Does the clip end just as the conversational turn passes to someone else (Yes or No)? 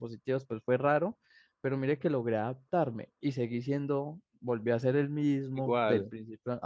No